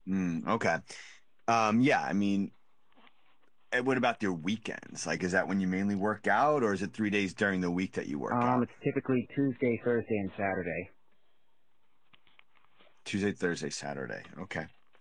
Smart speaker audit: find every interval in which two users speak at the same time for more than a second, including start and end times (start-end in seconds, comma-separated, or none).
none